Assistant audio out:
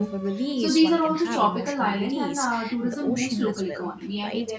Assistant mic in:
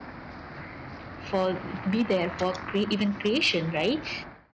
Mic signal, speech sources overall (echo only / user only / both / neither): user only